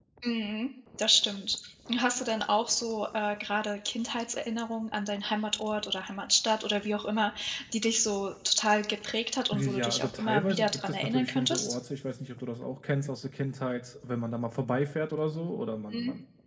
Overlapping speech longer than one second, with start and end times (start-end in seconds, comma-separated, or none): 9.5-11.8